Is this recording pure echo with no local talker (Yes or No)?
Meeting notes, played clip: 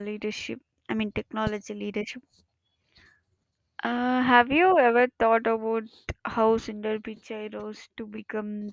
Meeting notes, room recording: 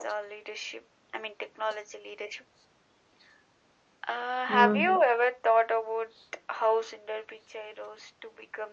No